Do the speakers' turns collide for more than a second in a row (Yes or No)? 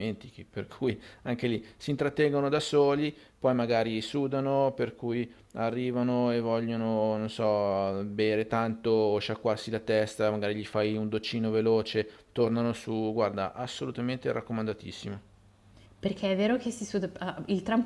No